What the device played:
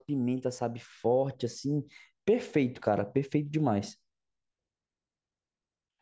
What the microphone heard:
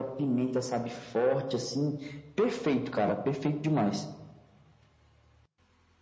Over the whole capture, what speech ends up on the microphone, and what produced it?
echo only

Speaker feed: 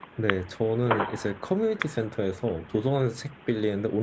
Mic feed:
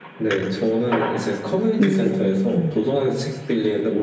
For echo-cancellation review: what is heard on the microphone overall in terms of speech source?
both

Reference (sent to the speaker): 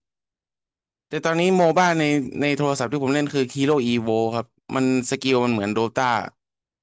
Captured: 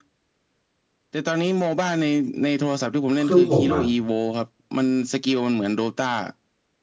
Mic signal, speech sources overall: both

